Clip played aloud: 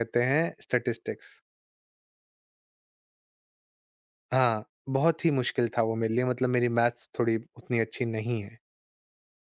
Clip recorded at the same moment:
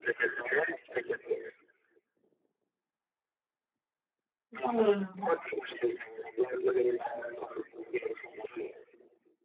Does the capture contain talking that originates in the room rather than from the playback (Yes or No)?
Yes